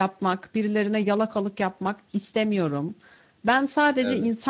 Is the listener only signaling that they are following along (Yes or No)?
Yes